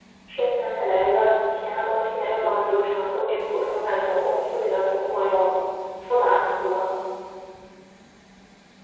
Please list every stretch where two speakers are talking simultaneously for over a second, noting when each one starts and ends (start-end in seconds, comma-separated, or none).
none